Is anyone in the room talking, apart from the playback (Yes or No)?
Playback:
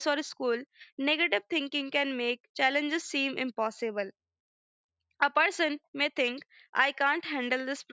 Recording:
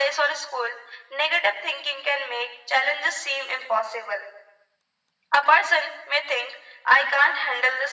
No